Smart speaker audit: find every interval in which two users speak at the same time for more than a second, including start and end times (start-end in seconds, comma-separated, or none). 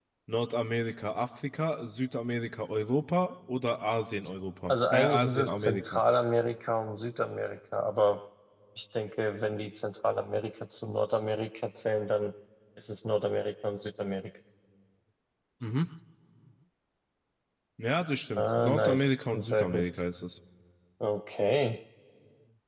4.7-6.0, 18.4-19.9